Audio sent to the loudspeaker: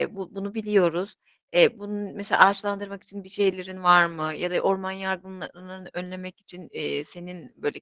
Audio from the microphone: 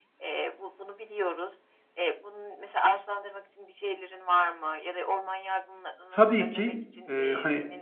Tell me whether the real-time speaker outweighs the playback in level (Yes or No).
Yes